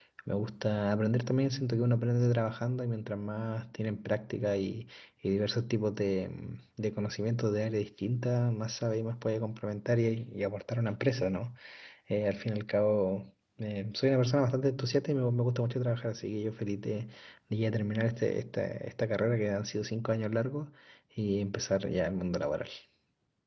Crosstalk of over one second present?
No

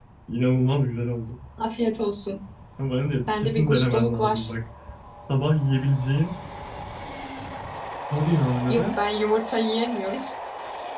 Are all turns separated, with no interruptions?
No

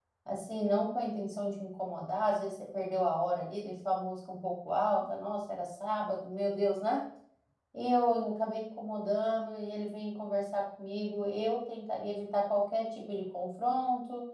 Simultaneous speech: No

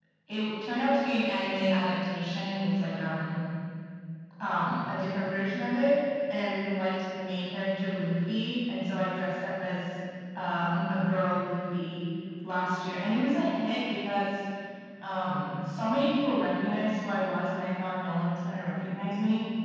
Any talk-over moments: No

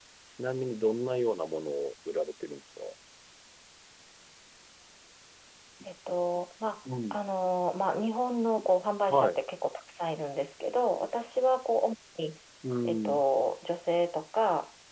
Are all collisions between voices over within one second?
Yes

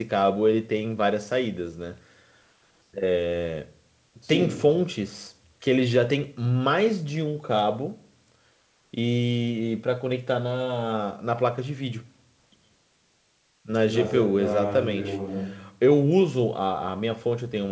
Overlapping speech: Yes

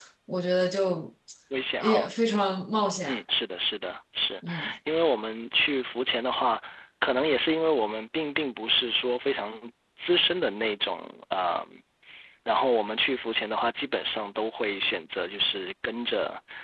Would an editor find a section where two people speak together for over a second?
No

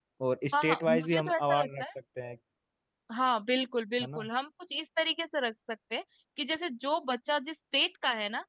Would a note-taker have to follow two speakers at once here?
Yes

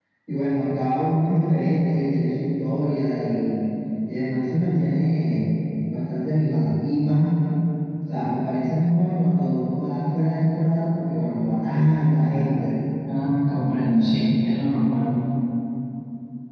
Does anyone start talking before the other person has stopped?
No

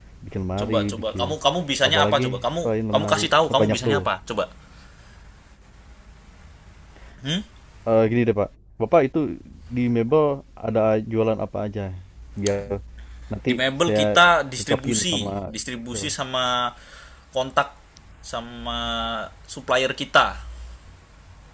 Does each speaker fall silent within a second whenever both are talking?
No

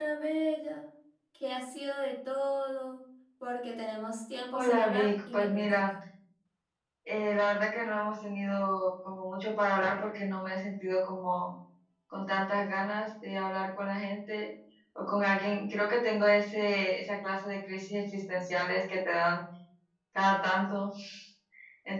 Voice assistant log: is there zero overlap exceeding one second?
No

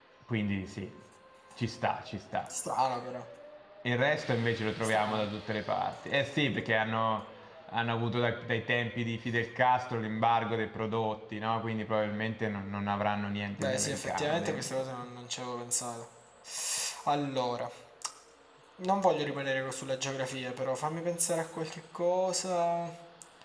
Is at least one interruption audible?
Yes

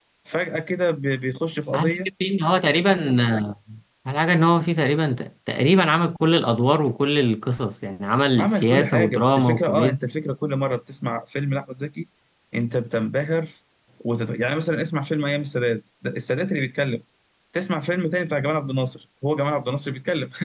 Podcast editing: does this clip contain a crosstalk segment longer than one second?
Yes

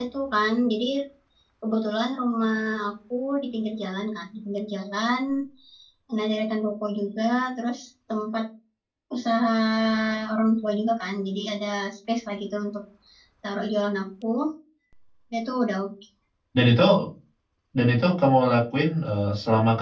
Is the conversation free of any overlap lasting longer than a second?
Yes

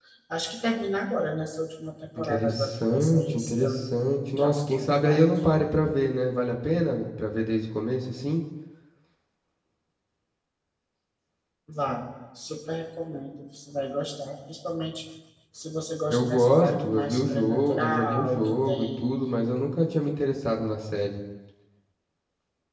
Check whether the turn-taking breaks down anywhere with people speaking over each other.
Yes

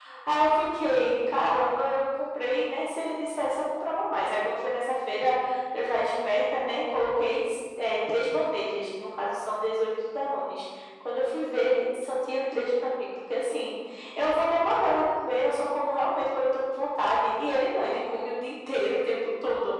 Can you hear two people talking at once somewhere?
No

